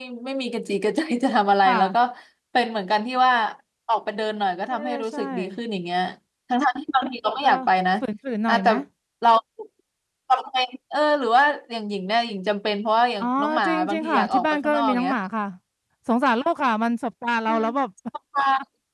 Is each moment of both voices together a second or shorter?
No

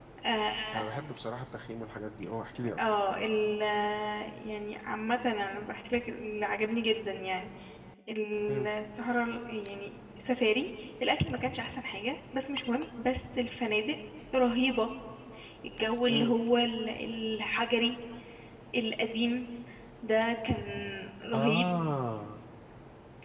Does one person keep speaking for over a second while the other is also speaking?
No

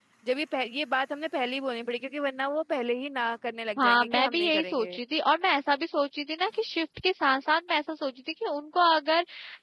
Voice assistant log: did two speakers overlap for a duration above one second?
Yes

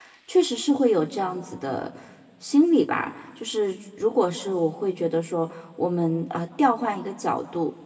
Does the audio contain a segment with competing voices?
No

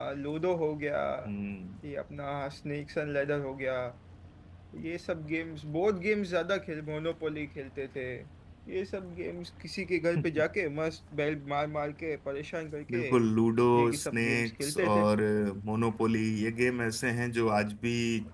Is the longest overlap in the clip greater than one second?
Yes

